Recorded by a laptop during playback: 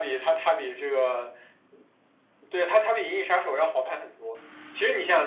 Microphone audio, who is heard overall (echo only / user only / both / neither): echo only